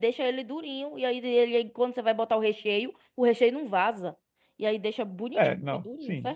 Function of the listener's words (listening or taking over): taking over